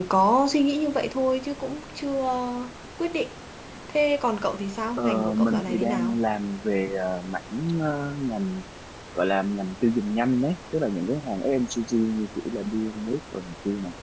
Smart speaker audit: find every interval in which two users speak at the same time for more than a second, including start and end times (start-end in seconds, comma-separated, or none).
5.0-6.2